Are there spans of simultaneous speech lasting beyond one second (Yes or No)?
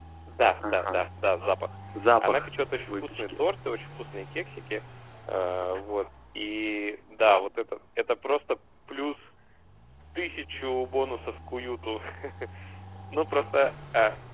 No